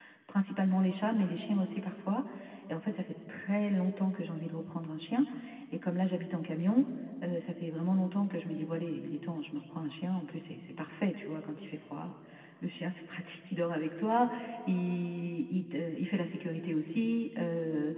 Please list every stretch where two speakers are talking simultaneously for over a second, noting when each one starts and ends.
none

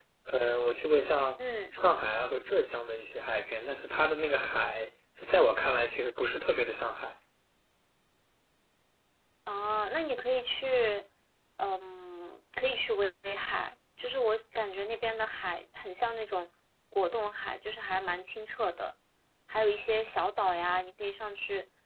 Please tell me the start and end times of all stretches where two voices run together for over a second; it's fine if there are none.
none

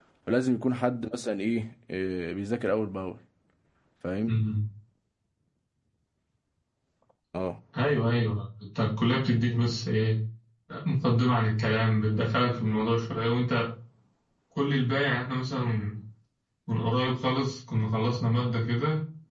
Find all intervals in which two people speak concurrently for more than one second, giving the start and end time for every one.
none

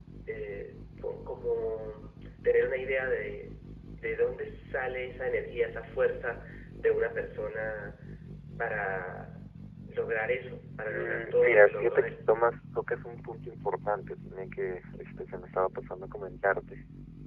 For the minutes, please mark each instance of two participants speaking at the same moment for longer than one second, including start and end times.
10.8-12.1

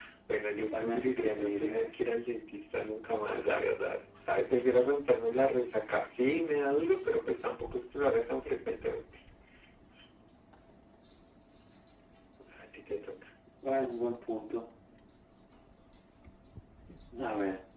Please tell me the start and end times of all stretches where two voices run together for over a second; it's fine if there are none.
0.8-2.1

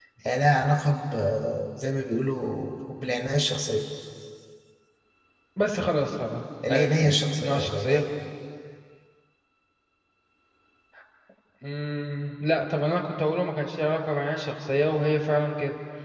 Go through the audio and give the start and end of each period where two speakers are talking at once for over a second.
6.7-8.0

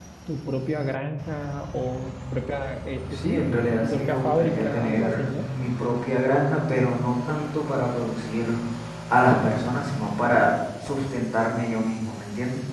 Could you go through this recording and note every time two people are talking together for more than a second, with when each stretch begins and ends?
3.1-5.4

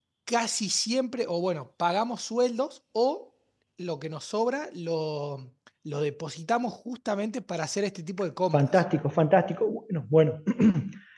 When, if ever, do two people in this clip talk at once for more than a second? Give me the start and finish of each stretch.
none

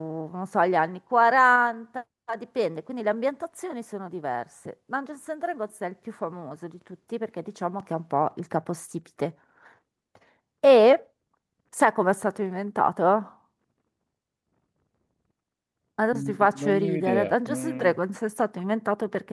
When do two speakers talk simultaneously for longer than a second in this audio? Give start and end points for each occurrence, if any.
16.1-17.9

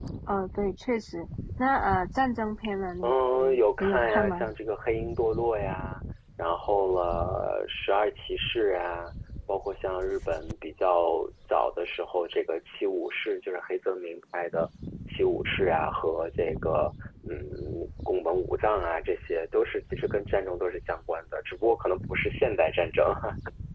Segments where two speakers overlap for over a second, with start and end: 3.0-4.5

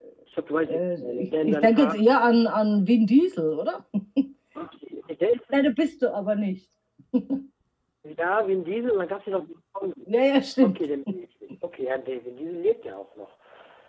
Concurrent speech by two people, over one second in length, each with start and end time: 0.7-1.9

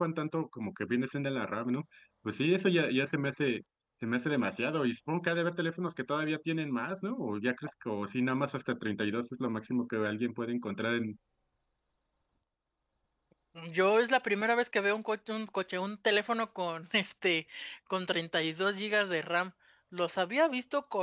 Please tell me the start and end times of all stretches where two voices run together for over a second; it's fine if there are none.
none

